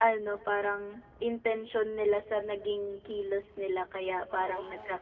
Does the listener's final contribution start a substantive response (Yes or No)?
No